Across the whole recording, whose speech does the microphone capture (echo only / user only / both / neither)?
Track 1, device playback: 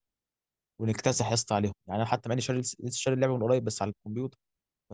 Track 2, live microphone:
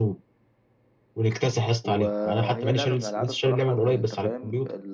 both